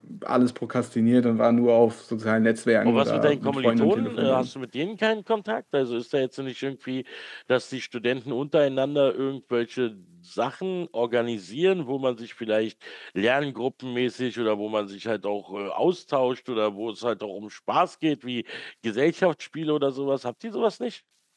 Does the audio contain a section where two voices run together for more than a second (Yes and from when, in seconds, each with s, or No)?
Yes, from 2.8 s